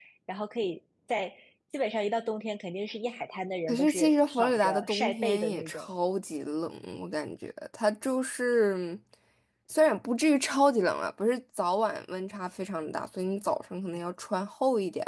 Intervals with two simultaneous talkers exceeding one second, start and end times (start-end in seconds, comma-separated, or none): 3.7-5.9